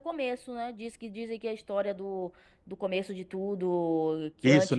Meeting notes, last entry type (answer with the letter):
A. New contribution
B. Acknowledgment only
A